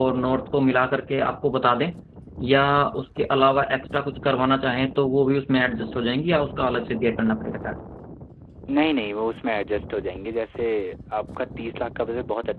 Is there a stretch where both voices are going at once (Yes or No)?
No